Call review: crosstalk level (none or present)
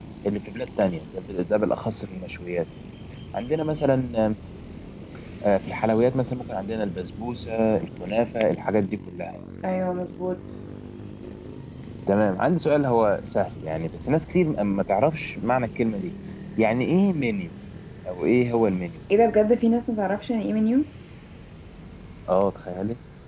none